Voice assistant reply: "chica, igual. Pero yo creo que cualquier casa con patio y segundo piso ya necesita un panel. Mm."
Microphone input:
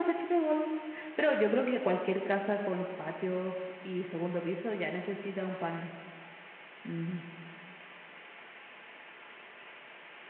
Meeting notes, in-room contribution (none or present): none